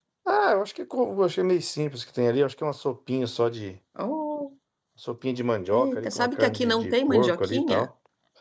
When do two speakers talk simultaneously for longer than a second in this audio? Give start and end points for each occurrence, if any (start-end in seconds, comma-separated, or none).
5.7-7.9